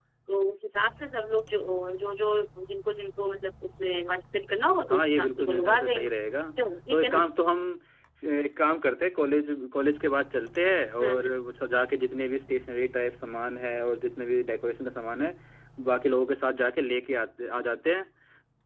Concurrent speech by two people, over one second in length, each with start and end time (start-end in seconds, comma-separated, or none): 4.9-6.1